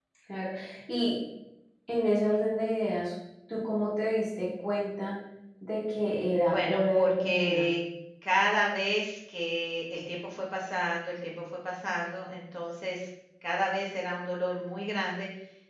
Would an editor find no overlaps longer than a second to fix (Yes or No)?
No